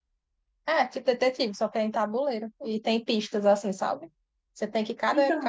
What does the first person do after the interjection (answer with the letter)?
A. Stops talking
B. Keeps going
B